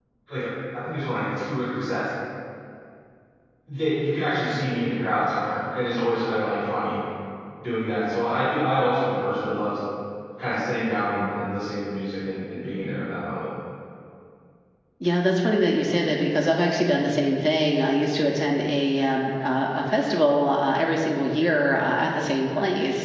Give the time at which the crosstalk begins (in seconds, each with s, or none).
none